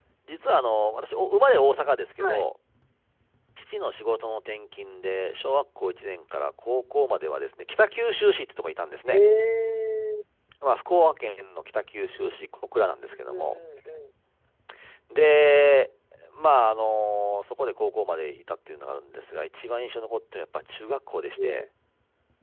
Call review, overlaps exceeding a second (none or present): none